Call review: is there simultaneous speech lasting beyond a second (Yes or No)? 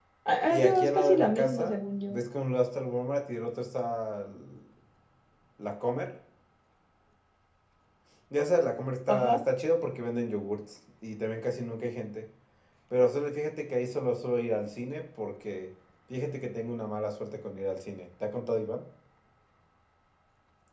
Yes